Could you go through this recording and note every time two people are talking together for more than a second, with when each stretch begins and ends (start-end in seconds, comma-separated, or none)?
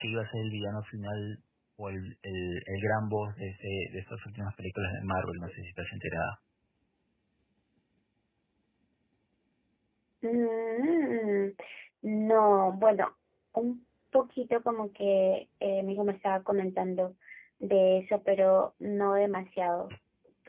none